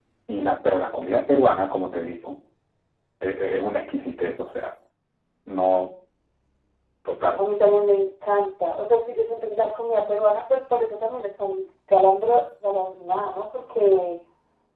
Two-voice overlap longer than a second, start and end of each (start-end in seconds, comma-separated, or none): none